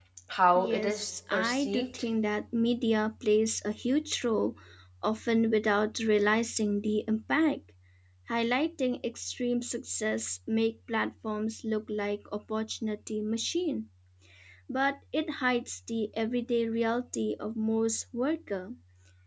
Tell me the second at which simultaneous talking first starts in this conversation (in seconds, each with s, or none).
0.6 s